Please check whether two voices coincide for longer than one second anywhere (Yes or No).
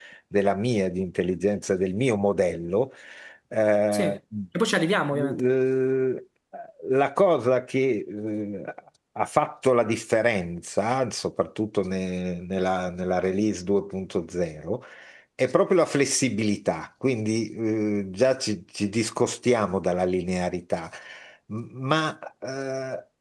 No